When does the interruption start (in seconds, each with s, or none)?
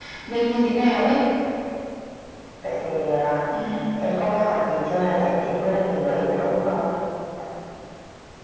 none